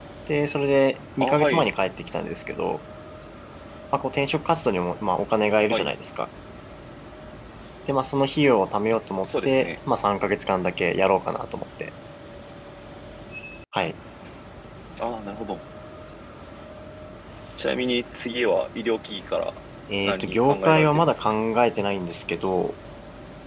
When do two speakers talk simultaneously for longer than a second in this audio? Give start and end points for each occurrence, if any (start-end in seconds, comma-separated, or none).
20.0-21.3